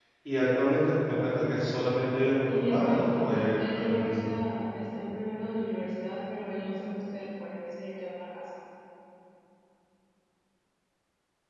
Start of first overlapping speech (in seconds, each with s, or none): 2.5 s